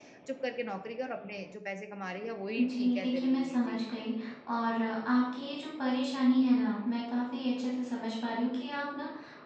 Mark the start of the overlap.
2.6 s

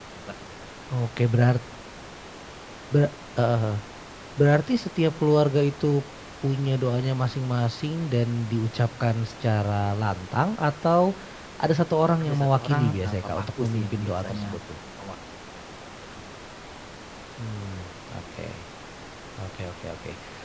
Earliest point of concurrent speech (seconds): 12.2 s

